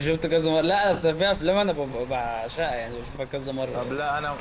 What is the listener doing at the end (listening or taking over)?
taking over